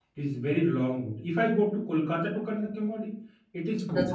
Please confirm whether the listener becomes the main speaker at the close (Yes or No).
Yes